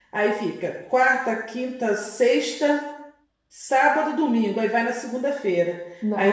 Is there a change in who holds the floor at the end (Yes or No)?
No